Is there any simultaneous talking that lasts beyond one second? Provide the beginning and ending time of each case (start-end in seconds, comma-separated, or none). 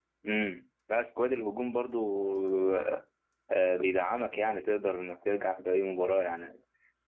none